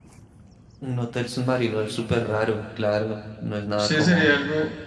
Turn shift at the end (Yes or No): Yes